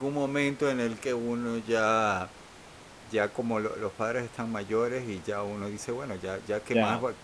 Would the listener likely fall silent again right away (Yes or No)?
Yes